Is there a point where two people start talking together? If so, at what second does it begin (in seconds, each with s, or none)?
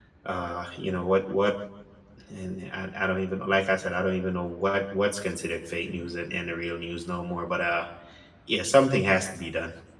none